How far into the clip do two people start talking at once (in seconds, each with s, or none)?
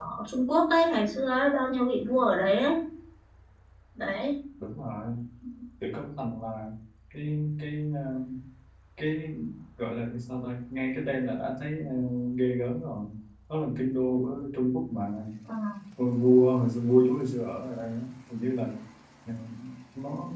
none